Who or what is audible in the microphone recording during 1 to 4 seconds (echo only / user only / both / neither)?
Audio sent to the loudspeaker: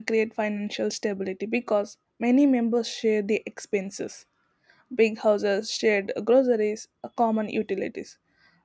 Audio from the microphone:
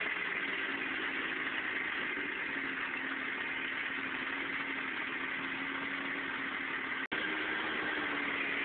neither